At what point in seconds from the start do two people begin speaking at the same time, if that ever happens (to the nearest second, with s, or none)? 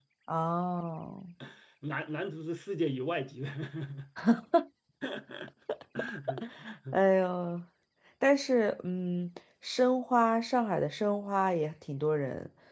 none